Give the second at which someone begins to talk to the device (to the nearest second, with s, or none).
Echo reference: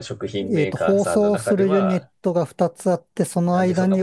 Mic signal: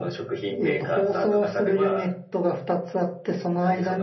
none